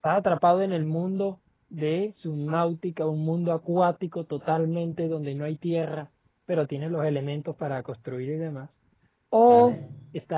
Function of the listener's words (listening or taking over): listening